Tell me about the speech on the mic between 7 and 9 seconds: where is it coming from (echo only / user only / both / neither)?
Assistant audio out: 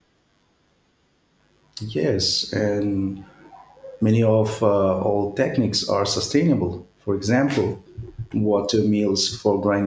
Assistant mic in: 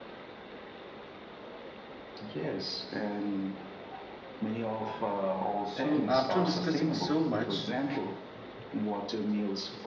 both